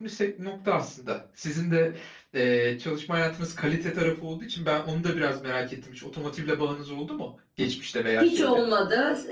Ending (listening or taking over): taking over